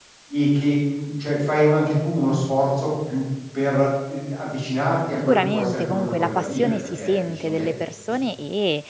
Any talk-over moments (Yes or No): Yes